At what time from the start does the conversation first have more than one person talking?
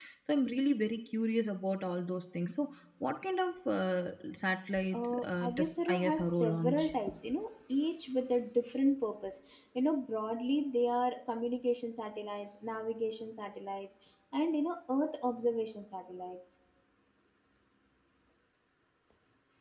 4.9 s

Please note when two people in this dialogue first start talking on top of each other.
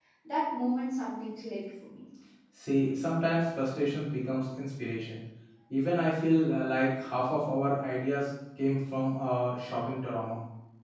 none

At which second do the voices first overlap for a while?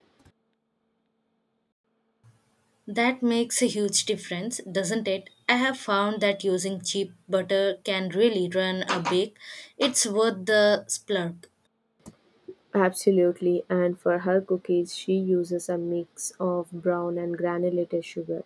none

